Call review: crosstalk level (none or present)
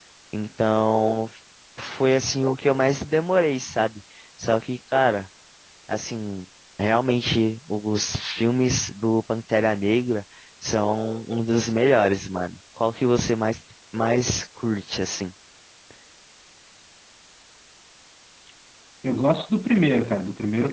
none